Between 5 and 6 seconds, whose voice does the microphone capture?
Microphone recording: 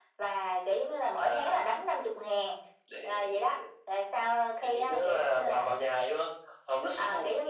echo only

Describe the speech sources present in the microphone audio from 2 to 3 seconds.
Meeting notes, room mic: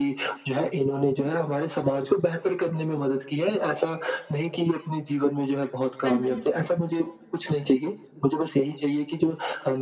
echo only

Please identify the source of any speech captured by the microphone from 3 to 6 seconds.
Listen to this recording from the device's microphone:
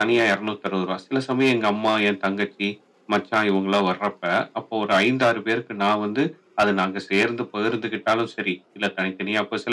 echo only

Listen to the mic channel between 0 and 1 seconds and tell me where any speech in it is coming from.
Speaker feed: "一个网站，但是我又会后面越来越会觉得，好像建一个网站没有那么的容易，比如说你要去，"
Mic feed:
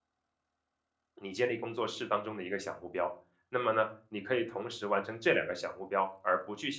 neither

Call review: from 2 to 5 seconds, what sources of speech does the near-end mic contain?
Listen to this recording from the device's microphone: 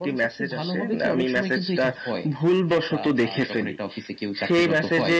echo only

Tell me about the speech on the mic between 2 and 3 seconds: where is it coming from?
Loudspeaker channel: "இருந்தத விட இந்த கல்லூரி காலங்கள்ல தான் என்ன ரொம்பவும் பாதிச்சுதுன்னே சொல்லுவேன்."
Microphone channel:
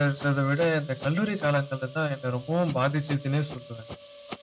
echo only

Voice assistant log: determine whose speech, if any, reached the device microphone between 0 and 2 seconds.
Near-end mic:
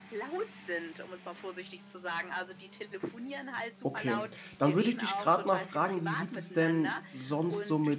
echo only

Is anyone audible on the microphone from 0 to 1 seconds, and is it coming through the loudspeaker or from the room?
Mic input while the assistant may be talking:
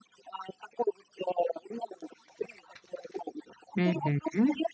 echo only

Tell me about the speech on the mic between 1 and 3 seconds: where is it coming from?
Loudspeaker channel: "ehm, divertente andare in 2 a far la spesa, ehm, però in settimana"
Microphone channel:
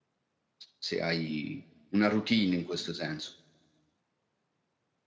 user only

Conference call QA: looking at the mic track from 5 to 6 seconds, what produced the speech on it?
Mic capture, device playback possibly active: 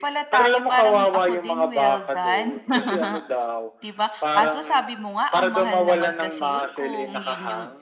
both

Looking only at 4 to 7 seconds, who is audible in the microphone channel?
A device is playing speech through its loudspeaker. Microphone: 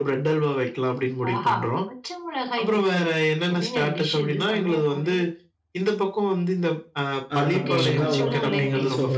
echo only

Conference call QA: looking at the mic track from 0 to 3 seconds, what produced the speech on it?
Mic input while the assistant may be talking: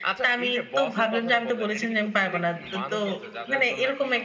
echo only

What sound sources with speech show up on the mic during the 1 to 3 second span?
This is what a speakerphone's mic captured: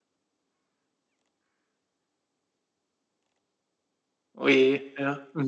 neither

